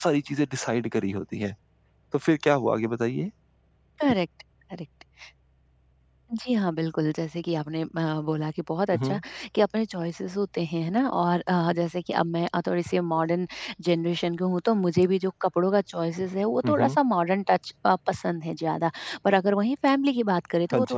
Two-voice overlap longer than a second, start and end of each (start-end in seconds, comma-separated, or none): none